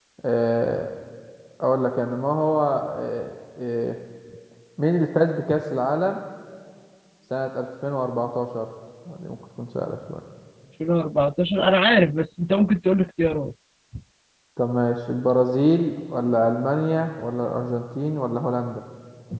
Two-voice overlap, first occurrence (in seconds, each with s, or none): none